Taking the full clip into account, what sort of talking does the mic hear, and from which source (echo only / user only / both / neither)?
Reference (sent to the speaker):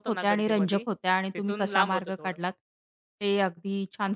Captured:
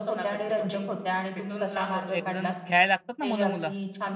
both